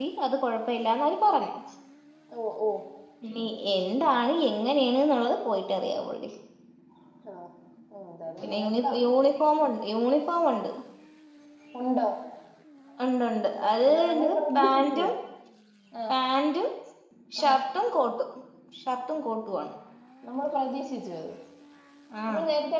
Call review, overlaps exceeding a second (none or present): present